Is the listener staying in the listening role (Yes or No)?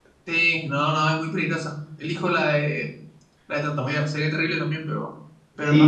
No